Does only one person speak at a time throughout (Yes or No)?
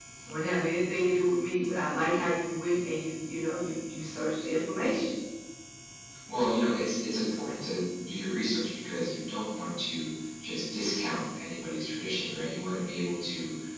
Yes